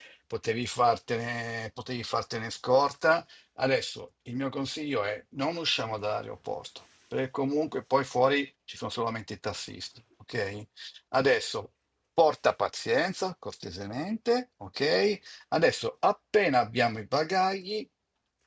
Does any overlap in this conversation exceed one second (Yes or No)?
No